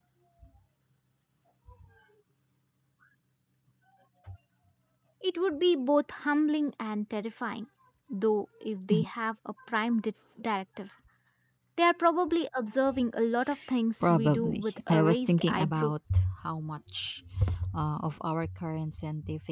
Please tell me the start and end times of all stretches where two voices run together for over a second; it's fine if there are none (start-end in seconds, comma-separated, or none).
14.0-15.9